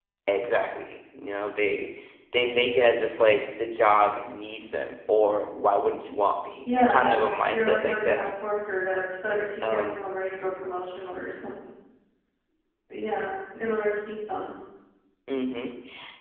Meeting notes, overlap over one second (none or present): present